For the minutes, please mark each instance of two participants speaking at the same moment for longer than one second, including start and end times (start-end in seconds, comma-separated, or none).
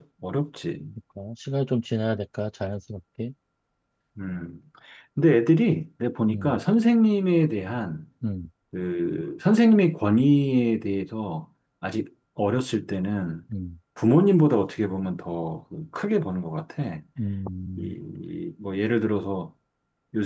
none